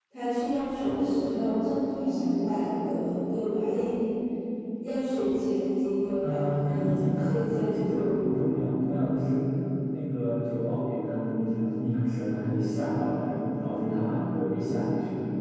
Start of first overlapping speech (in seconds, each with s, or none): 6.2 s